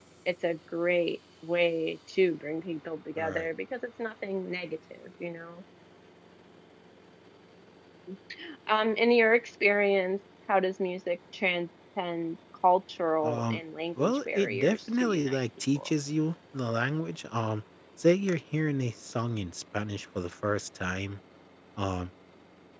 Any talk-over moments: Yes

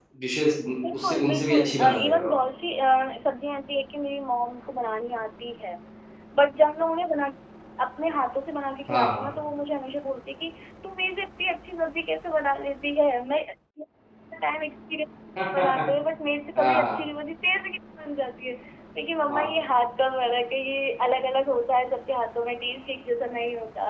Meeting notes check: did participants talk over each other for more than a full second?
Yes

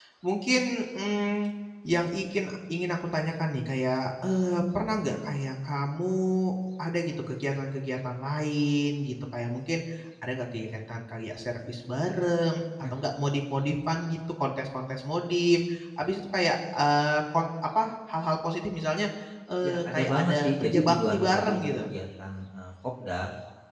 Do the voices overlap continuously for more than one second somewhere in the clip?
Yes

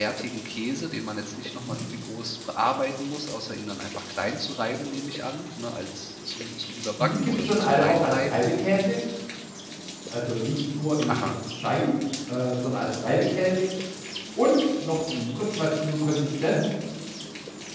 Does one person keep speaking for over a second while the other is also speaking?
Yes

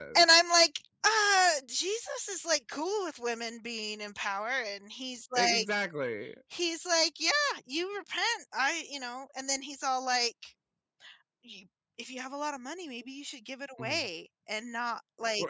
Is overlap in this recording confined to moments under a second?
Yes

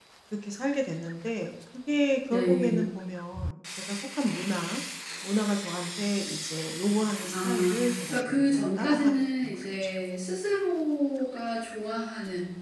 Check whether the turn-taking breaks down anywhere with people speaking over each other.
Yes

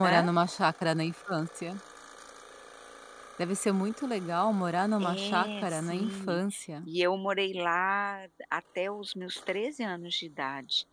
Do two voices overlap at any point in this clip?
Yes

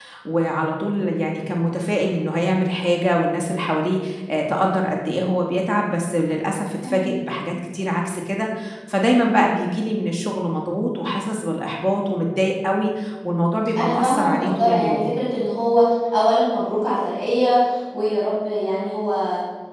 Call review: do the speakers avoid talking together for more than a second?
No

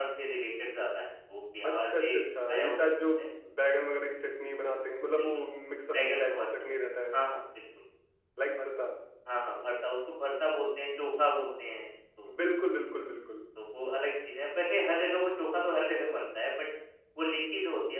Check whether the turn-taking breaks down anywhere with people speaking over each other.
Yes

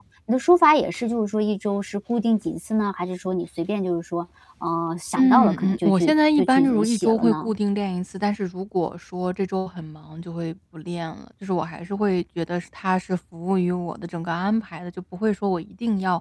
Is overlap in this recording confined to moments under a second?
No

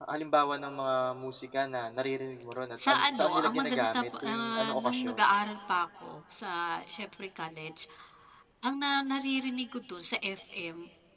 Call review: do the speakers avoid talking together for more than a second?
No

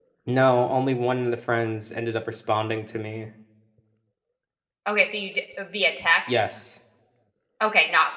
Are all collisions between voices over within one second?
Yes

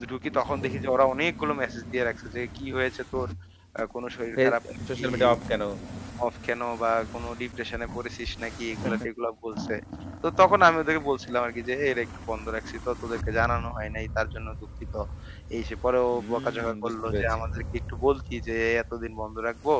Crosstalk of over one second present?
Yes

